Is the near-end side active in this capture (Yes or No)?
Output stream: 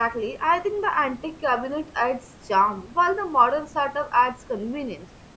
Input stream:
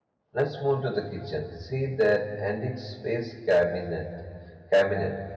Yes